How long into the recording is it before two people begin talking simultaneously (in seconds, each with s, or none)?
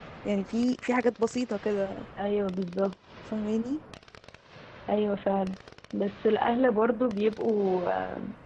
none